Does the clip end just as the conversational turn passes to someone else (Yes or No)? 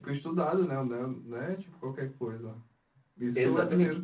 No